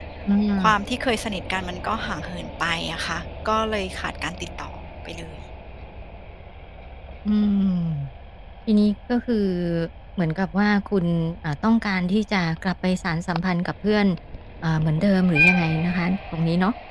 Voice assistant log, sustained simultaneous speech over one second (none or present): none